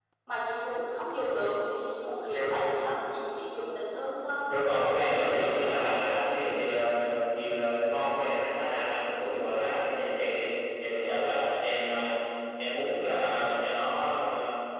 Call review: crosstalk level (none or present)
present